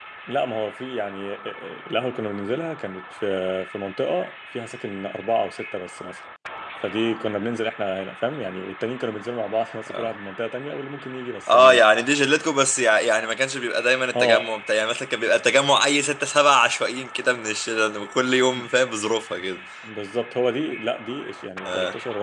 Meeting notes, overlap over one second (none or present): none